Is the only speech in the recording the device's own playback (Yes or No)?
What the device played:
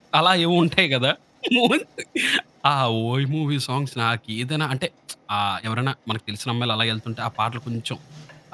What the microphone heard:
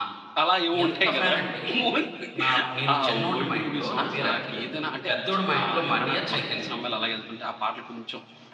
No